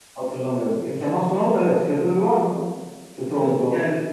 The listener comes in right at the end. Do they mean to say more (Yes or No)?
Yes